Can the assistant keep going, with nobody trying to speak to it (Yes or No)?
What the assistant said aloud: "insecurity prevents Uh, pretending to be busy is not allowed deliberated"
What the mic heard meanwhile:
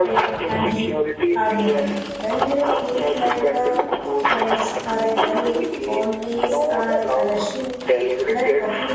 No